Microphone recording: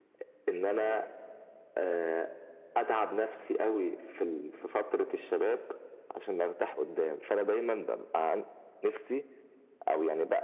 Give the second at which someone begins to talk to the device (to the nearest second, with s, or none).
none